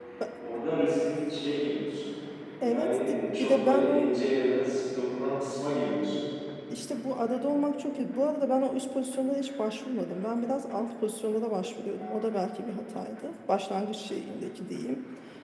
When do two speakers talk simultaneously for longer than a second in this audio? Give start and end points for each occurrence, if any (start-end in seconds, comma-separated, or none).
2.6-4.1